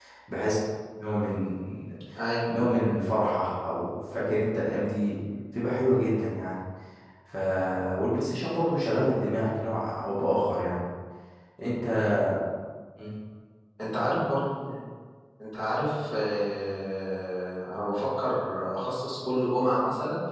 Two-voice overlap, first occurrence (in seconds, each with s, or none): none